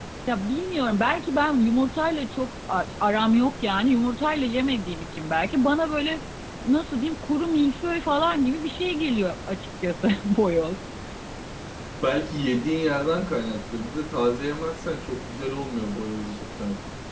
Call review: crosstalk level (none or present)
none